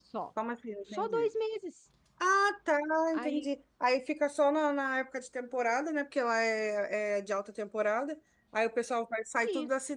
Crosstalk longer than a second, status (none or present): none